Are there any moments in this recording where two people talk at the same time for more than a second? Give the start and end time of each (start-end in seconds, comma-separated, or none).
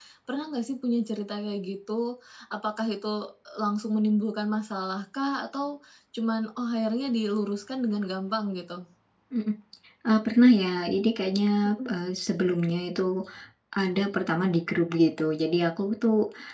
none